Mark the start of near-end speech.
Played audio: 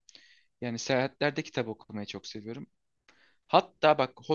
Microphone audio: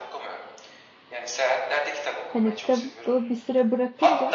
2.3 s

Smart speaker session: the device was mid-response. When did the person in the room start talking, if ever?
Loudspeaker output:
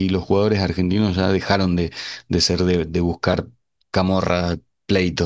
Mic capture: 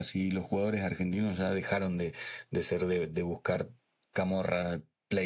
none

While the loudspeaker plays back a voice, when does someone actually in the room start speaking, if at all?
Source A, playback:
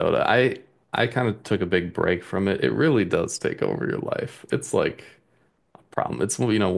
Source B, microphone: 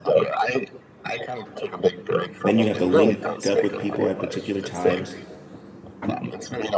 2.4 s

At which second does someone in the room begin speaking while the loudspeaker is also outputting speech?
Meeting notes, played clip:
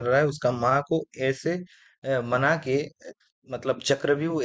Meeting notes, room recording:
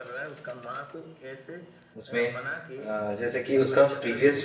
2.0 s

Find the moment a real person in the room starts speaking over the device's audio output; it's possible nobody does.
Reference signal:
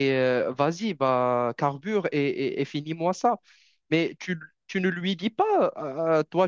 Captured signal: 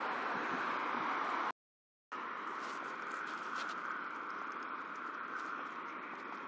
none

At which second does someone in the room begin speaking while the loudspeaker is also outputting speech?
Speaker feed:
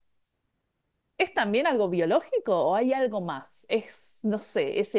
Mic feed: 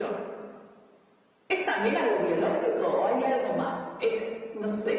none

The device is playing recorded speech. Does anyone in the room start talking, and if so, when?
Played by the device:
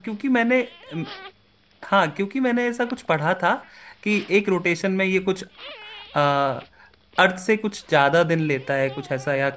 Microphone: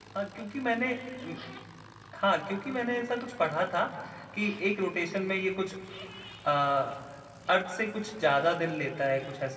none

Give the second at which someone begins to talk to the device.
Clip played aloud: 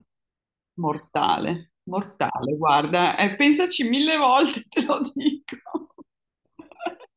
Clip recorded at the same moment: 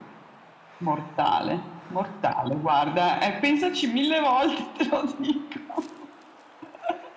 none

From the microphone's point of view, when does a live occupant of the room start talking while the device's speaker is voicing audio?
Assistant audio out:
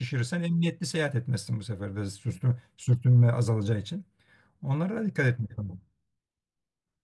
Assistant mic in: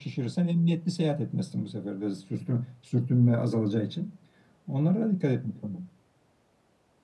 none

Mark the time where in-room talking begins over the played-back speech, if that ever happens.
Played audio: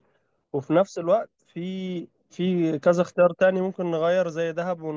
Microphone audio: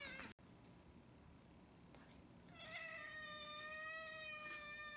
none

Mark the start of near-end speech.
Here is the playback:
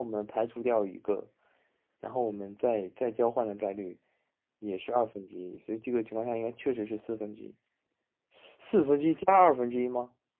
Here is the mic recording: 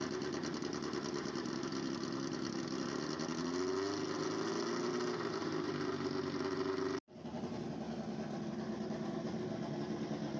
none

